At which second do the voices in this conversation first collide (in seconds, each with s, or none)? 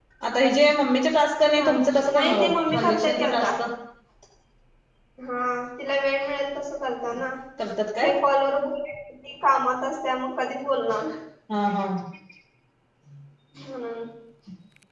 1.6 s